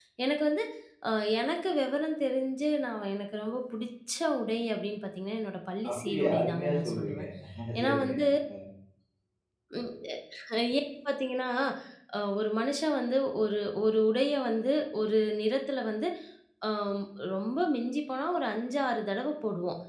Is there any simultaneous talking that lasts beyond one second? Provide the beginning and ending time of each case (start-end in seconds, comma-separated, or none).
5.9-7.2